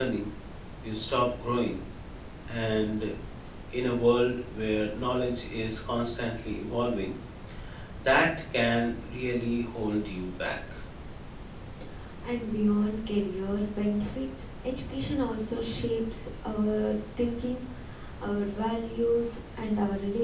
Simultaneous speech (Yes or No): No